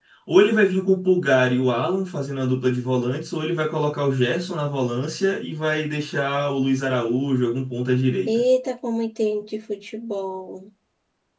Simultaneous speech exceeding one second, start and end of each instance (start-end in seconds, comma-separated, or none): none